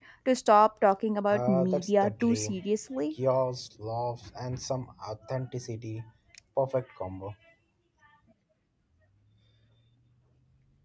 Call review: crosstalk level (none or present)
present